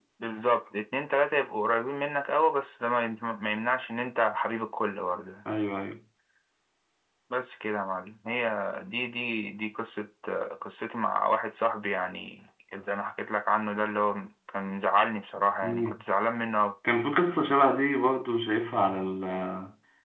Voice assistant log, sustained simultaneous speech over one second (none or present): none